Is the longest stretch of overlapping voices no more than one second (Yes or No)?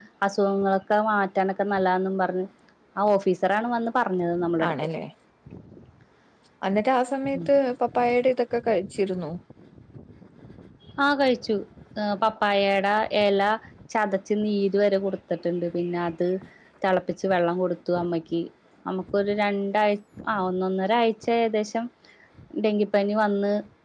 Yes